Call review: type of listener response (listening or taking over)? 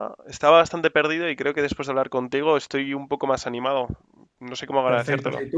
taking over